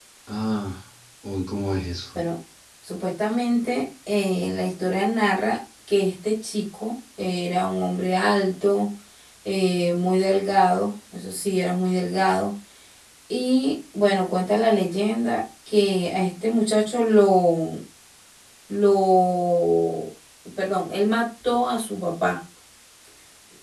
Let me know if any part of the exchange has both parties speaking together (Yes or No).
No